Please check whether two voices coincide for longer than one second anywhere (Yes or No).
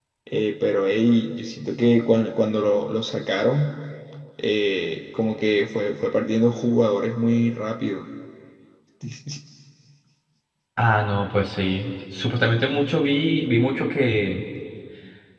No